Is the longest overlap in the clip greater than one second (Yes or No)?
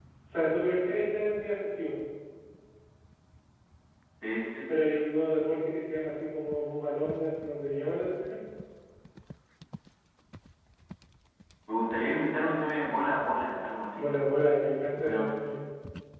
No